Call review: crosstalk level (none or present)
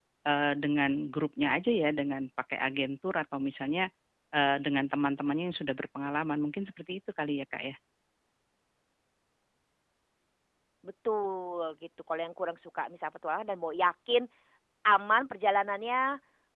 none